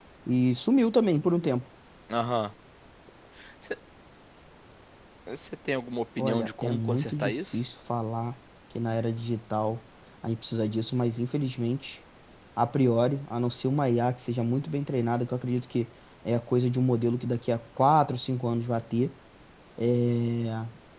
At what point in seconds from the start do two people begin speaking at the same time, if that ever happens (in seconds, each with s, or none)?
6.2 s